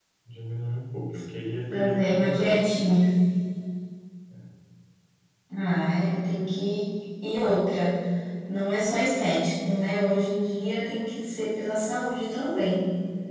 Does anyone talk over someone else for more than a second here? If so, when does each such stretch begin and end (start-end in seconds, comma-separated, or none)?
1.7-2.9